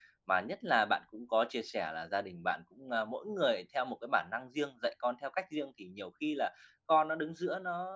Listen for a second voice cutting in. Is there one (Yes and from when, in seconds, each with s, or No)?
No